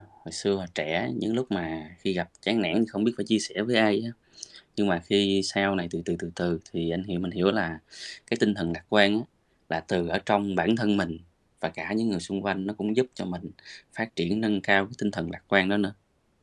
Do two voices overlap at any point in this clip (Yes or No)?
No